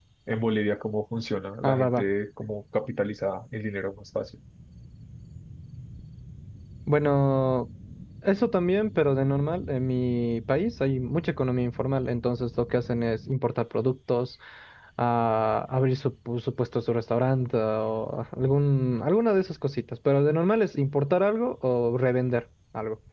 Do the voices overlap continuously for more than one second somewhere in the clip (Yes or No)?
No